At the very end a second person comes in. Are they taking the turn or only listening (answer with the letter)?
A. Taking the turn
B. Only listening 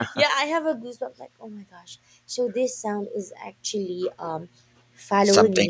B